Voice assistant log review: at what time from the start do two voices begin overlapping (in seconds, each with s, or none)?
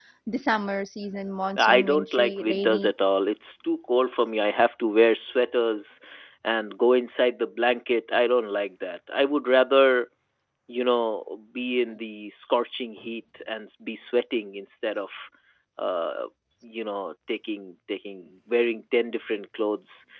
1.6 s